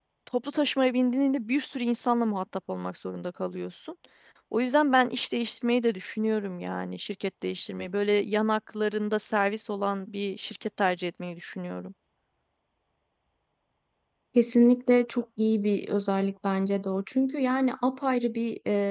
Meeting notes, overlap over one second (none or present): none